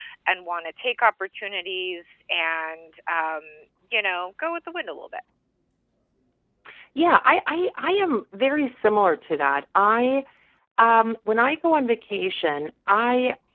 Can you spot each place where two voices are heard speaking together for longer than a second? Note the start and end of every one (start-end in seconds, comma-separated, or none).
none